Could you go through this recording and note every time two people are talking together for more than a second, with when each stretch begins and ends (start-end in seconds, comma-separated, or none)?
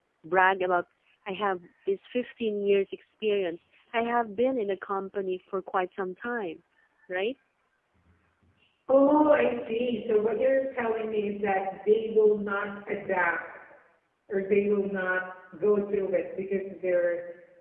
none